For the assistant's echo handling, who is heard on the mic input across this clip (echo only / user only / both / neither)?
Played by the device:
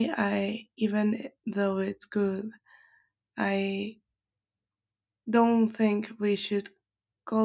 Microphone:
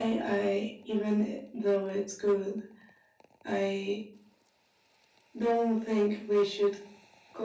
echo only